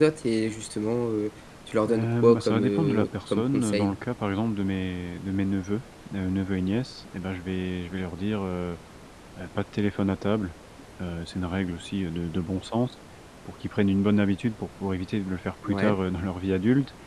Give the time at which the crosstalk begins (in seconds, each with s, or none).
1.9 s